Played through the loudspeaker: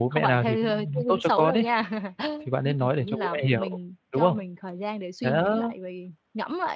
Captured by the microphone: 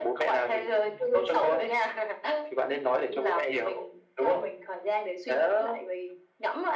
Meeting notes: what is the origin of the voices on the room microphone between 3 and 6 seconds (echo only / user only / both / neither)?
echo only